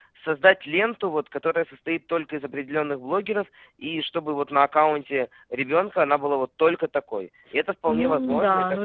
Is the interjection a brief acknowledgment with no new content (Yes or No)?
No